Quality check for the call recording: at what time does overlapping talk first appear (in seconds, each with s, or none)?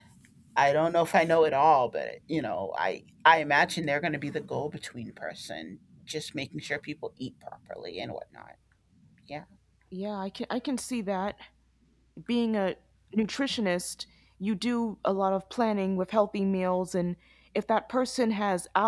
none